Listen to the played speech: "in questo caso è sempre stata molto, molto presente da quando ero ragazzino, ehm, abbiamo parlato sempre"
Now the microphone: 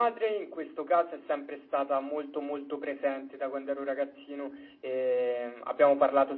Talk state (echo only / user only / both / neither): echo only